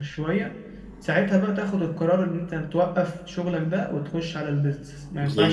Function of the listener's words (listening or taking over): taking over